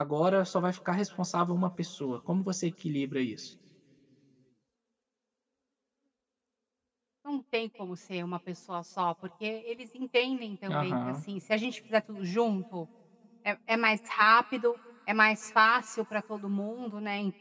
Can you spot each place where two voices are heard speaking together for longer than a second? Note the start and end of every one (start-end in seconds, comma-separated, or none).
none